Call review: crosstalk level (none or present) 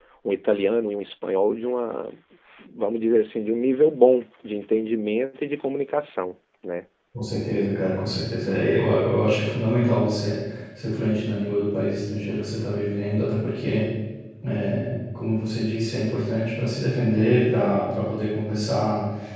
none